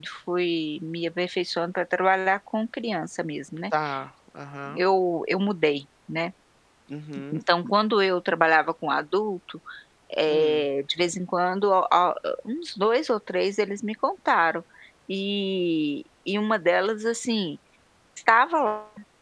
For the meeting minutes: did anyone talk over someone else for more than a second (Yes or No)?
No